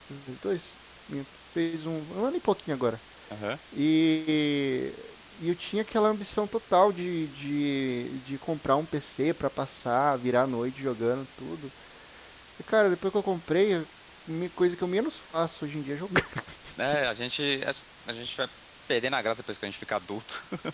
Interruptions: none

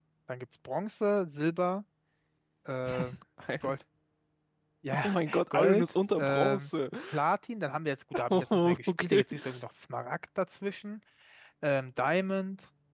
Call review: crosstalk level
present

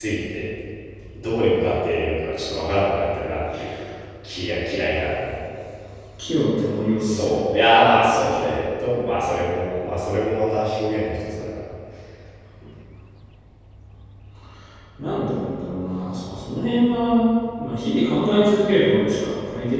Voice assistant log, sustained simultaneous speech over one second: none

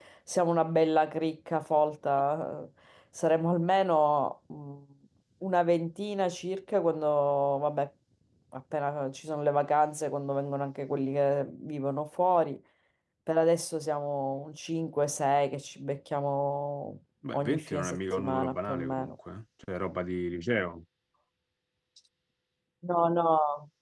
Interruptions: present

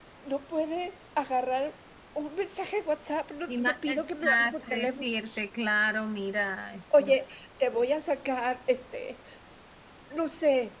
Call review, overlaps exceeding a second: present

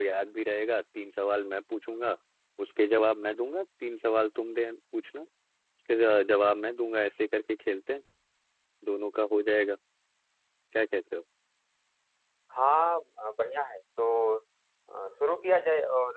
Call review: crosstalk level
none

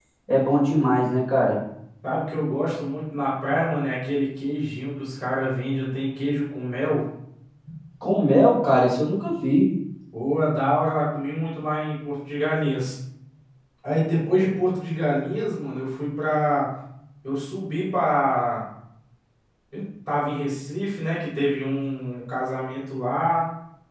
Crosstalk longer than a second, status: none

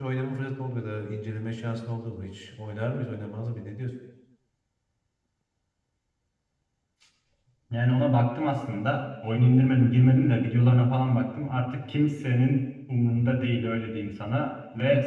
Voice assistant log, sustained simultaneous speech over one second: none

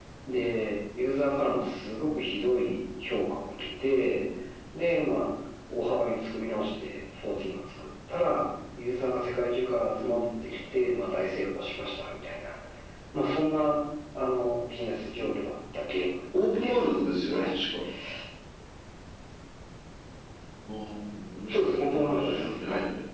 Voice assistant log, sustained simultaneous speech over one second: present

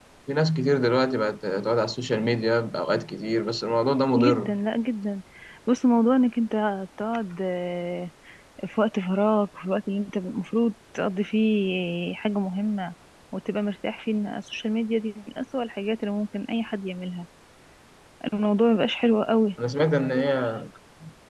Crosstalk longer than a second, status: none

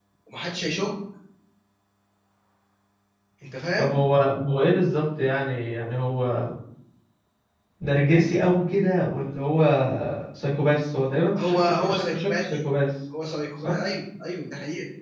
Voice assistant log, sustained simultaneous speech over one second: present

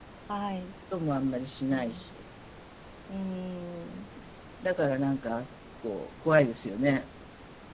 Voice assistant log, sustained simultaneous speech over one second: none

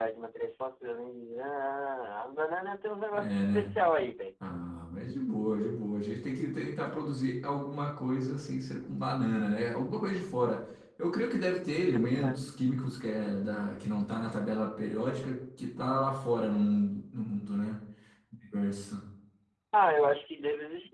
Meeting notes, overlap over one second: none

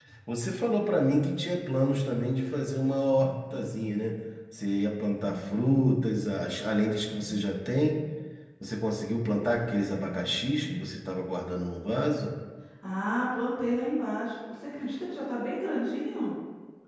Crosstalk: none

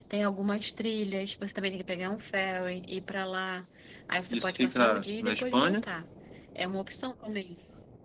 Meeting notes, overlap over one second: present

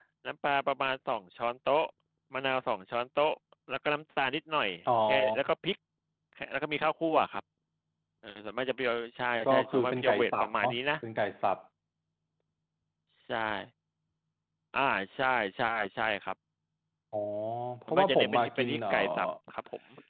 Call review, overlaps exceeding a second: present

